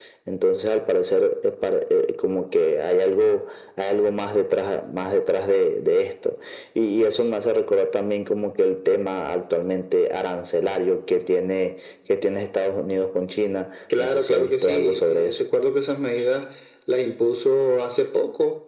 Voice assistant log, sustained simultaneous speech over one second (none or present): present